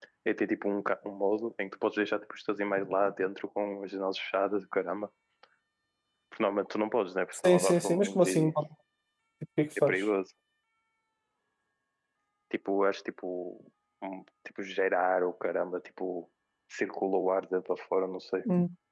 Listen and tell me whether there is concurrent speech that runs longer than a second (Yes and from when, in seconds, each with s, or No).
Yes, from 7.3 s